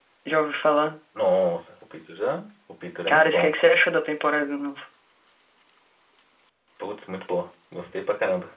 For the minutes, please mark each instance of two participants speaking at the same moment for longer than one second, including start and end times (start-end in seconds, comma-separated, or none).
none